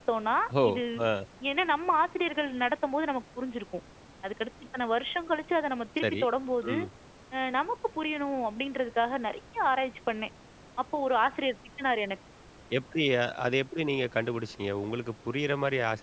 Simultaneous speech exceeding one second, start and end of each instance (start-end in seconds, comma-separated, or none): none